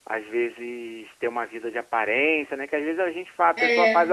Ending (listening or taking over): listening